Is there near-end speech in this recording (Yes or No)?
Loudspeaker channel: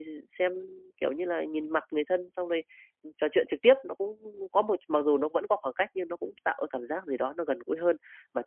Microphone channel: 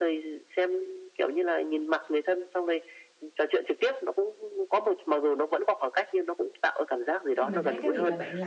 Yes